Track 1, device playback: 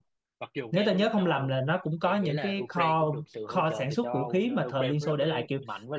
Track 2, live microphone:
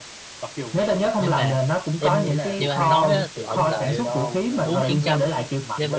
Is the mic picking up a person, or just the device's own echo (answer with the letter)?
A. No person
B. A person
B